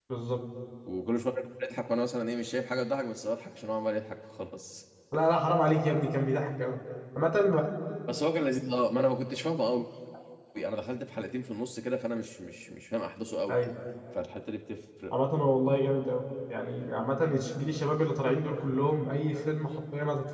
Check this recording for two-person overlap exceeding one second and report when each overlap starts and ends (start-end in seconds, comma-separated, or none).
none